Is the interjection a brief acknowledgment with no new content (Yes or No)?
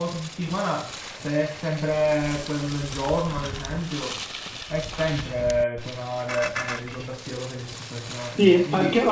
No